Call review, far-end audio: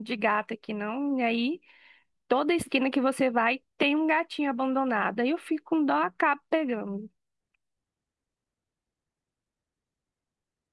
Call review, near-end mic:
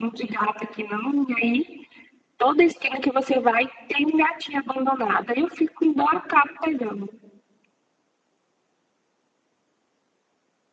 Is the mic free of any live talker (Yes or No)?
Yes